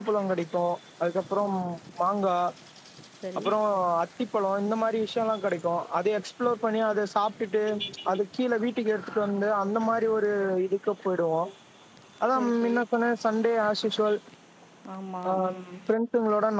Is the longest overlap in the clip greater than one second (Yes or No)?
No